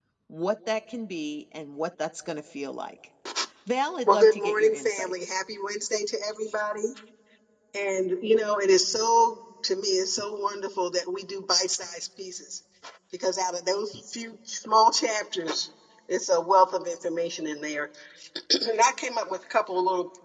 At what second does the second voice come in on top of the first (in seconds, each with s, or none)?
4.0 s